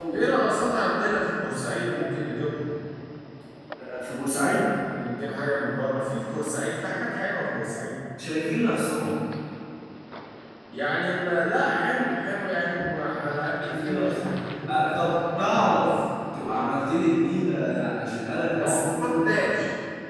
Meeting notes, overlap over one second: present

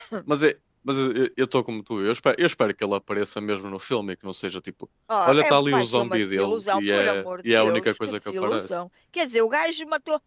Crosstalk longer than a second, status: present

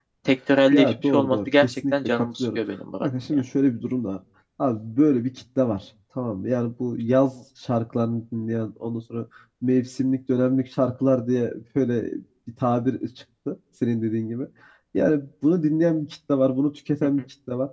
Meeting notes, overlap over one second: present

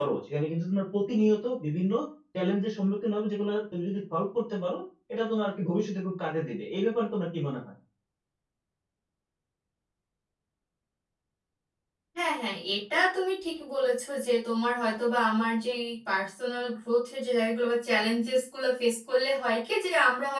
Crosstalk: none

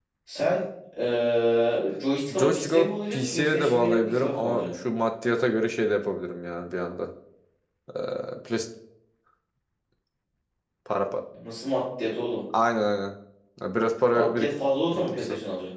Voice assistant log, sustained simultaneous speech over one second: present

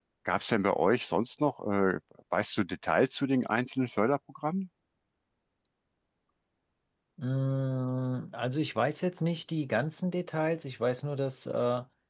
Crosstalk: none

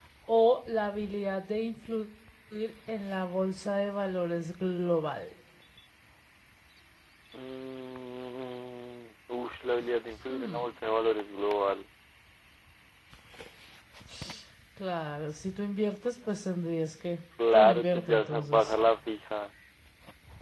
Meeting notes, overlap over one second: present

